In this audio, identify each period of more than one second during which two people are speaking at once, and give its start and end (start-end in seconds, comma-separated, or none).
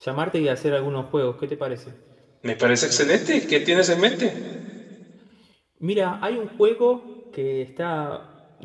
none